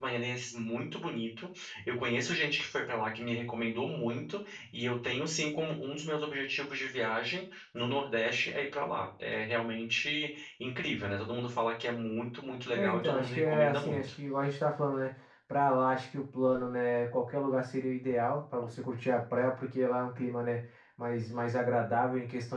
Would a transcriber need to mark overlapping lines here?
Yes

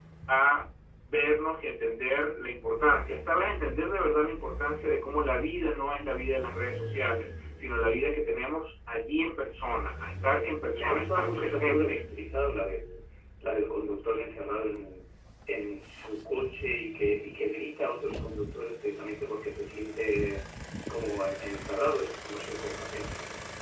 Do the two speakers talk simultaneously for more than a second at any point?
Yes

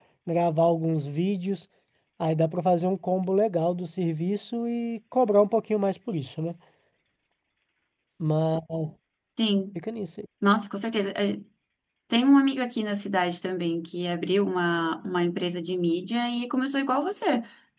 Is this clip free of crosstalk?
Yes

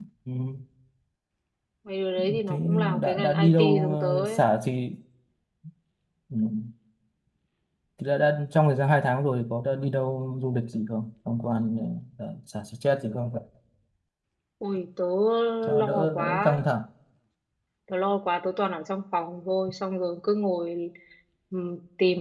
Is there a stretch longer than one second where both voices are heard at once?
Yes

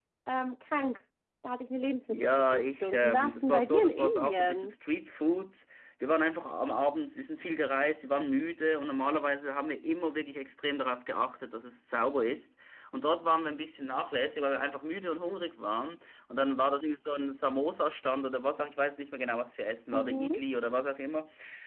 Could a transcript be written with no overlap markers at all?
No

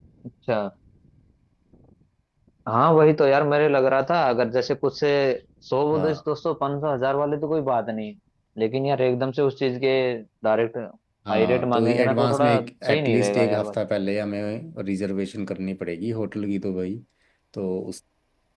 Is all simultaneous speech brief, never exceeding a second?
No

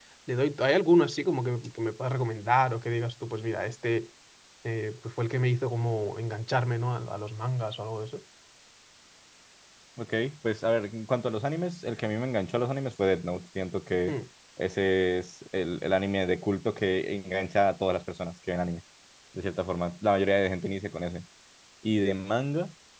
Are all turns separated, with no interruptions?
Yes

